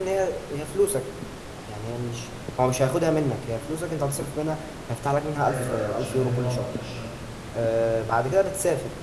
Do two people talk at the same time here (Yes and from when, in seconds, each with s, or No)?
Yes, from 5.4 s